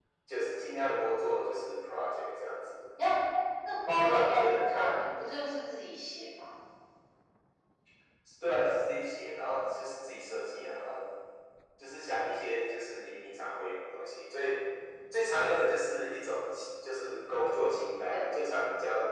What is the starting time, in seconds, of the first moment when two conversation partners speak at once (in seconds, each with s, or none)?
3.9 s